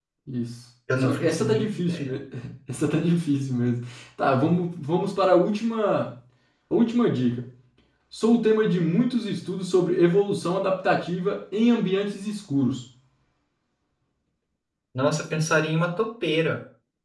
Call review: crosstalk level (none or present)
present